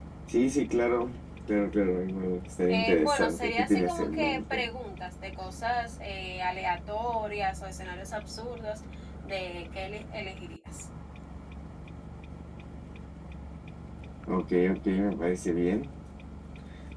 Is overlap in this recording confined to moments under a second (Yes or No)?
No